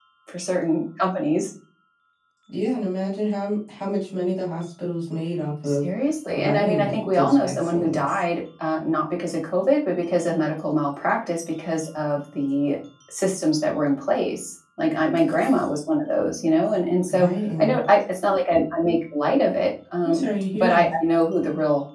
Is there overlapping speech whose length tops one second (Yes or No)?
Yes